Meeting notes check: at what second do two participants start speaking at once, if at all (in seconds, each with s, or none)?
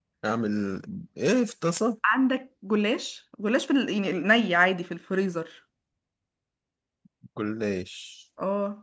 none